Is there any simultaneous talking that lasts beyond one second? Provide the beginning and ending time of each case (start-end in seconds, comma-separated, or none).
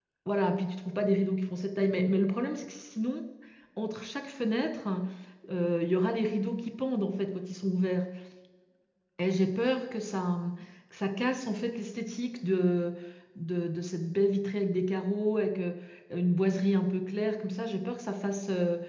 none